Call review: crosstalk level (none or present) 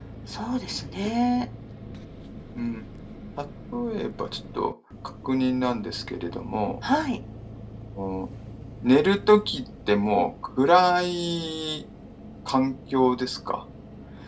none